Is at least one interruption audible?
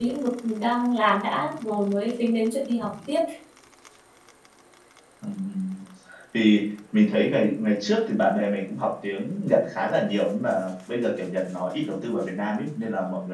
No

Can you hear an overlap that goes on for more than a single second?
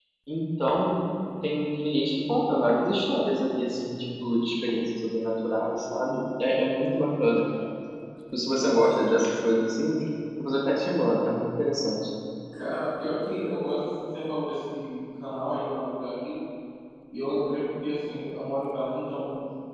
No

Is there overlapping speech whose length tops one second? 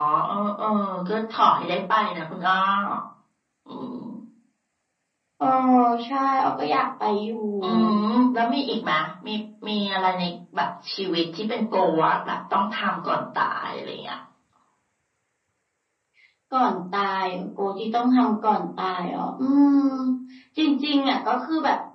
No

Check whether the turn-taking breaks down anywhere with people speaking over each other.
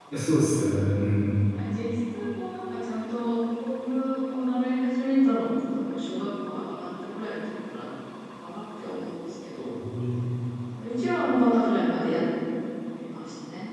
No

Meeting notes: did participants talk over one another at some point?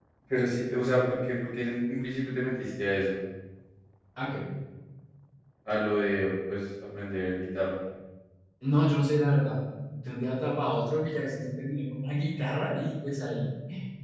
No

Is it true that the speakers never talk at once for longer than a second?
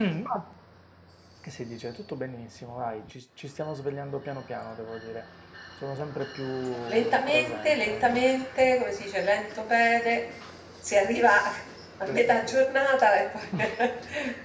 No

